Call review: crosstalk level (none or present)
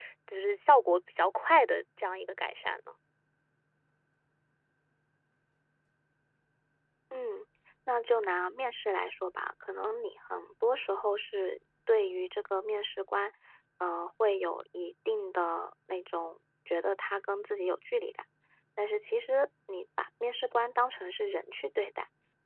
none